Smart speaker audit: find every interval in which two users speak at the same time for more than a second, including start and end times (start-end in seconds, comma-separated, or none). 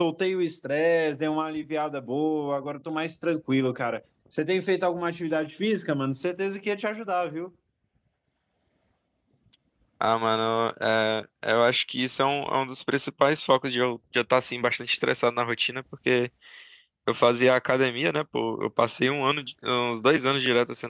none